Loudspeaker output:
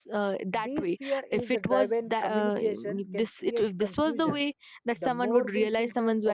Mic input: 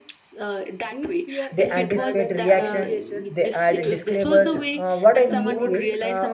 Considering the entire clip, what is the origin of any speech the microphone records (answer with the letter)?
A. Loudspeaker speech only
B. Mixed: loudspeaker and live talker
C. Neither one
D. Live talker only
B